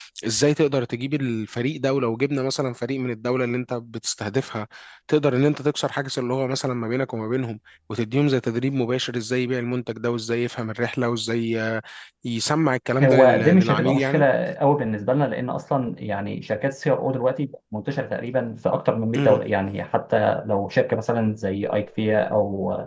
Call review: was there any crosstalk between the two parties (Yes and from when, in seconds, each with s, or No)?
Yes, from 13.0 s